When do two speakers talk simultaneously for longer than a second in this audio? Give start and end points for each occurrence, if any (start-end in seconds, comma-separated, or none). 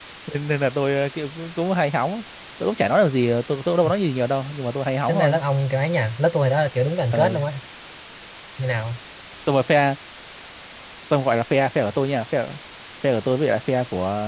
none